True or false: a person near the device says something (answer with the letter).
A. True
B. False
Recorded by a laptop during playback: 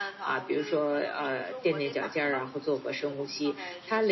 A